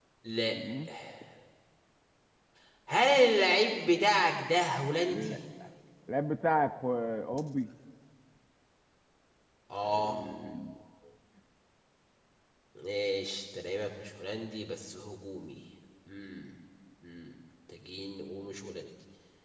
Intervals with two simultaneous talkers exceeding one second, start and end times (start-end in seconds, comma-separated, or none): none